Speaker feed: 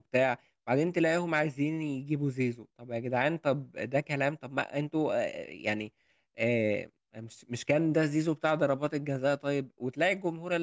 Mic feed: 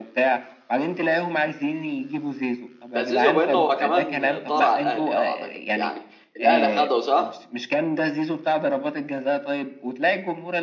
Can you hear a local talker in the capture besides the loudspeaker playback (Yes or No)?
Yes